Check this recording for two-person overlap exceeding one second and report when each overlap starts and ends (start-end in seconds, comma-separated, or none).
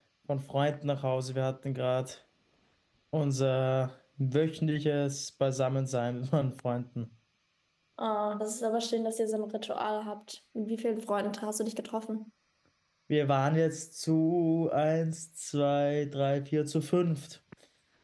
none